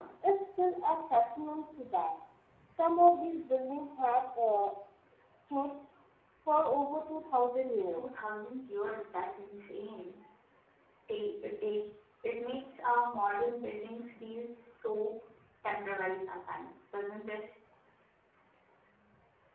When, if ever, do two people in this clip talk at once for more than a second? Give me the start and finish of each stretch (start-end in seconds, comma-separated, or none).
none